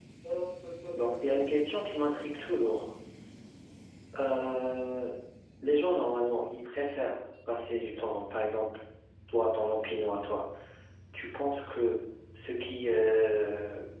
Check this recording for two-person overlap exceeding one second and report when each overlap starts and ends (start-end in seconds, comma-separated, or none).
0.9-2.8